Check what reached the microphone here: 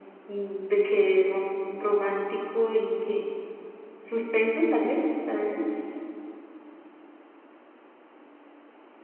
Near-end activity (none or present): none